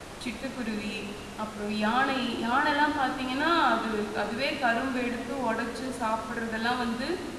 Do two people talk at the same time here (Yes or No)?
No